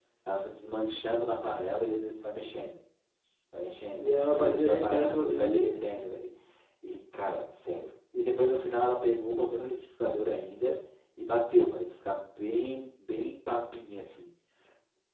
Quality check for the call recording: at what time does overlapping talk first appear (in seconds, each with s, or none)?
4.0 s